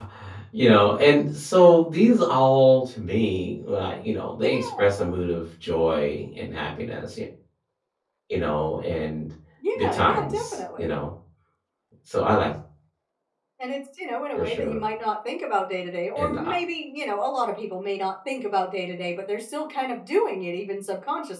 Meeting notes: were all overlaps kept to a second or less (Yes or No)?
No